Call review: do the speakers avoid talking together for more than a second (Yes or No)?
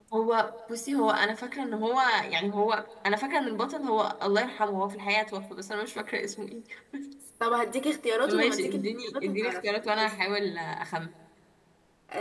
No